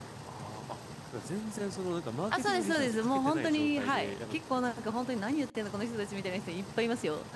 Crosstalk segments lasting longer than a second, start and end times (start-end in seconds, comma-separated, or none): 2.3-5.1